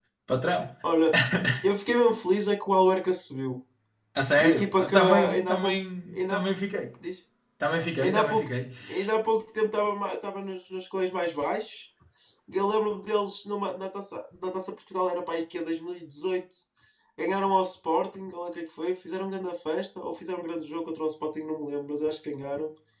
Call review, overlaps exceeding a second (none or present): present